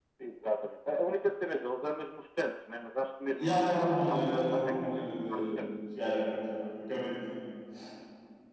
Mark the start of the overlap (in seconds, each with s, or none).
3.4 s